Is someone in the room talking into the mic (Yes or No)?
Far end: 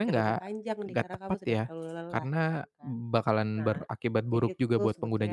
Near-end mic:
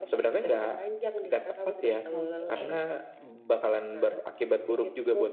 Yes